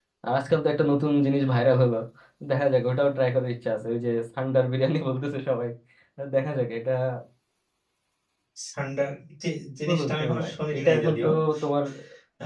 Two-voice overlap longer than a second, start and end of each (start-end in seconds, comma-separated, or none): 9.9-11.3